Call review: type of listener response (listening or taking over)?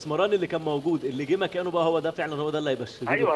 taking over